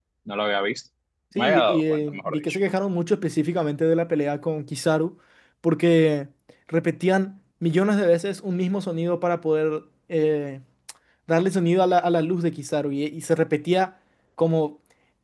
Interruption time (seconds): 1.4 s

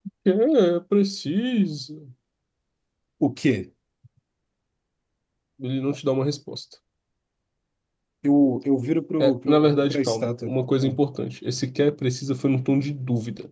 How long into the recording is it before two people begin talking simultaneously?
9.2 s

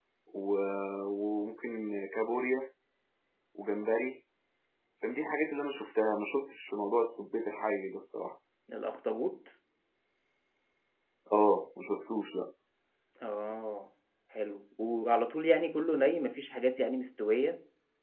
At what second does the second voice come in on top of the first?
none

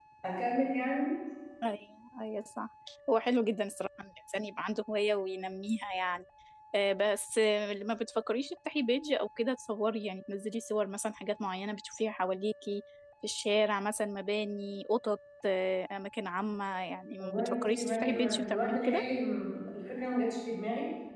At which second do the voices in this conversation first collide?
17.2 s

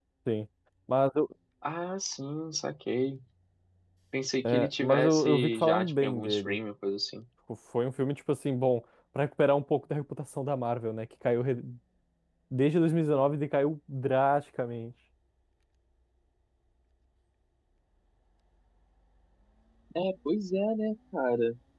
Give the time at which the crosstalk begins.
4.4 s

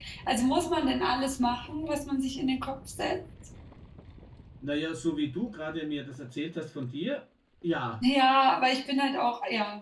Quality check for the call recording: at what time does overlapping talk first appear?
none

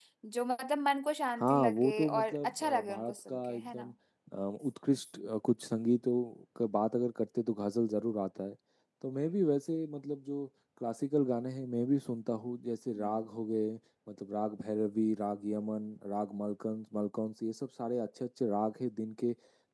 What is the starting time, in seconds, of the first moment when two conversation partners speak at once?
1.4 s

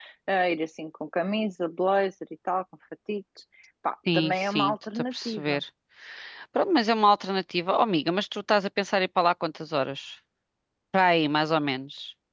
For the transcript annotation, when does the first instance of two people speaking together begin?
4.1 s

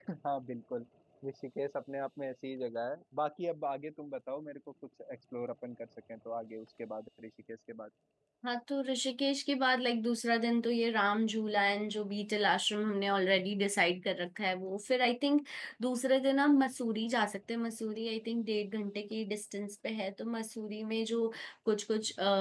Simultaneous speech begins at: none

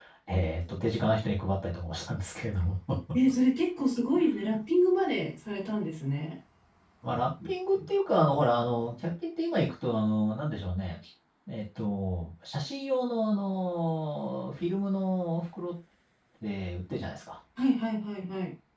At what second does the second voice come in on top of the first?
none

